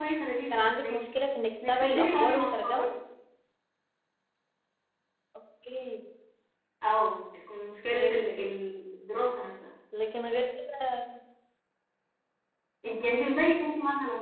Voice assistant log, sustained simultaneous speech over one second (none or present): present